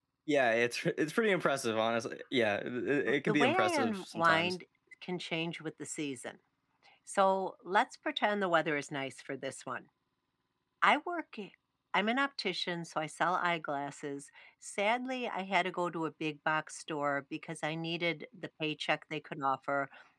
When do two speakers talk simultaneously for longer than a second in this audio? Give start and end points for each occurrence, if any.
3.1-4.5

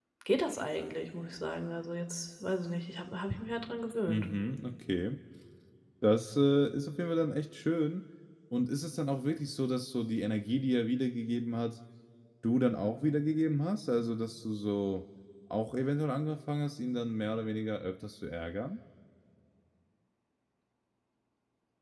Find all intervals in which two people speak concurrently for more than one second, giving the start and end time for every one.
none

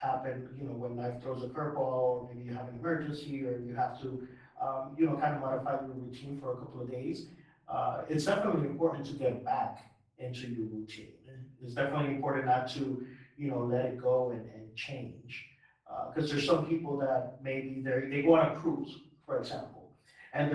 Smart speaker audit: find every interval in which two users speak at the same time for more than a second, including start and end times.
none

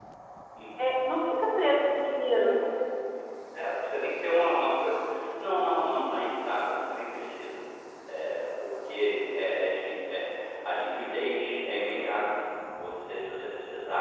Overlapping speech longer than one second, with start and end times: none

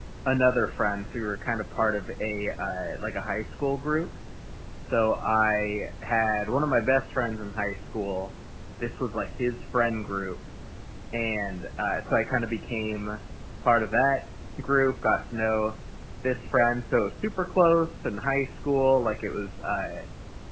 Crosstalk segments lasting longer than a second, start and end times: none

